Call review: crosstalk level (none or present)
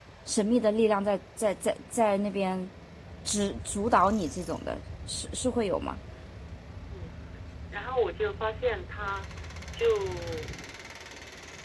none